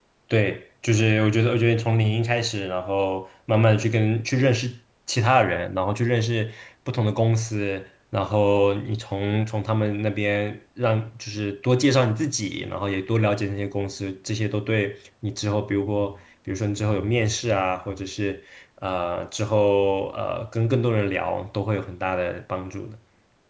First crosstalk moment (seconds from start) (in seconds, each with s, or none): none